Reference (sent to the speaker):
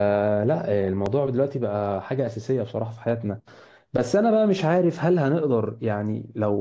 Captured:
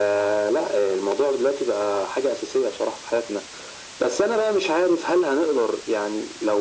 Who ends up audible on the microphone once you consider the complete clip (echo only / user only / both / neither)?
echo only